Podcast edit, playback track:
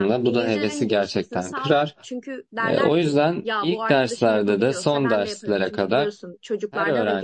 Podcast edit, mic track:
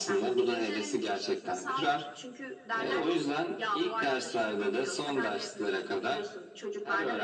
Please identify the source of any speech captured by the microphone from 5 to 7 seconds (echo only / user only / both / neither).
echo only